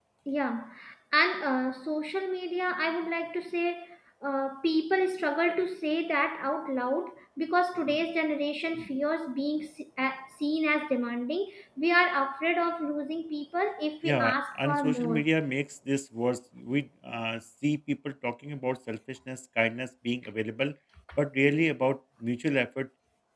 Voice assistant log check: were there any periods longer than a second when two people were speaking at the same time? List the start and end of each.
14.0-15.2

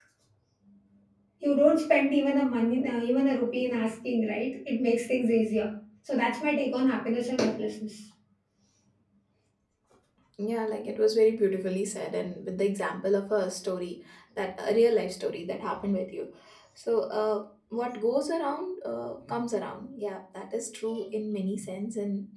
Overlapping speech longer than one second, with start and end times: none

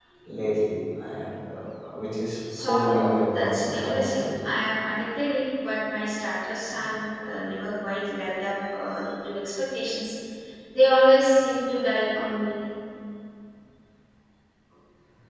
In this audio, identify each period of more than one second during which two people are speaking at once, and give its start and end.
2.6-4.3

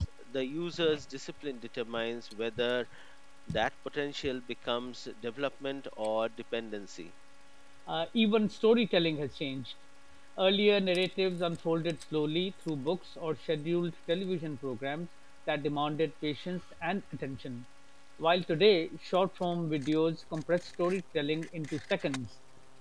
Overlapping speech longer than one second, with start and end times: none

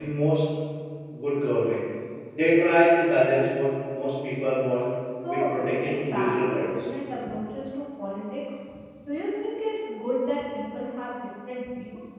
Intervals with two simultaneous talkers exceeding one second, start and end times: 5.3-6.9

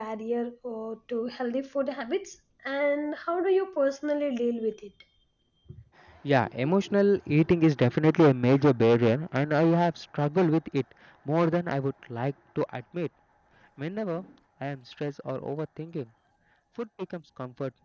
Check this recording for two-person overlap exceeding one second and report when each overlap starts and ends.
none

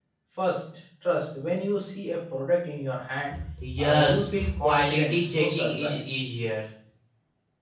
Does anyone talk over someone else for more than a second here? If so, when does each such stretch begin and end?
3.8-6.0

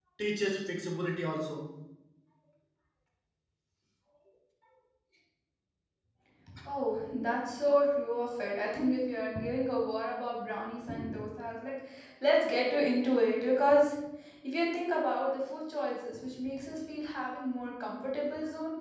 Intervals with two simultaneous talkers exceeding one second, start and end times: none

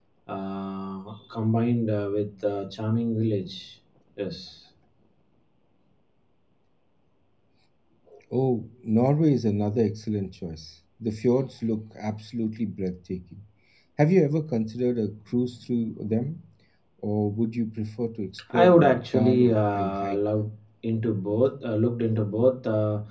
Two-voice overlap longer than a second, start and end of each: 18.5-20.2

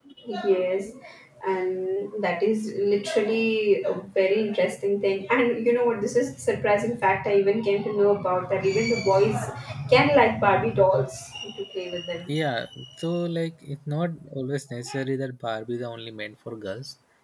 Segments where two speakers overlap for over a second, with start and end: none

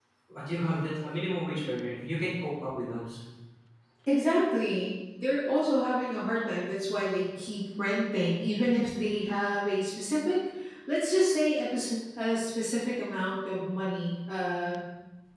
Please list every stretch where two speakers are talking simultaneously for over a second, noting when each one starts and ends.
none

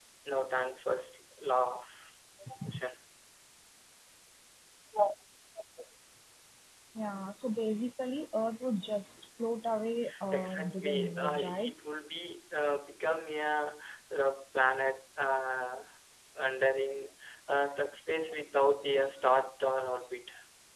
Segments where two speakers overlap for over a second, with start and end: 10.3-11.7

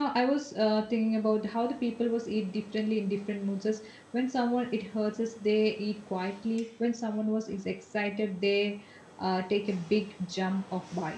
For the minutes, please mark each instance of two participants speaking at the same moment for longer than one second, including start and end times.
none

